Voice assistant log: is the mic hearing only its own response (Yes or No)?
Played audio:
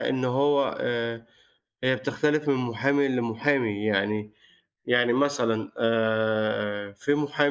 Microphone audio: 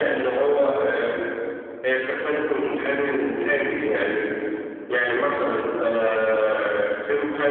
Yes